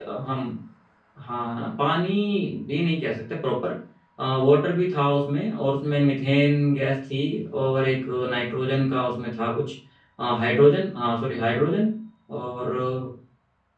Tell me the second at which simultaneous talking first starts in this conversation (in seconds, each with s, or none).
none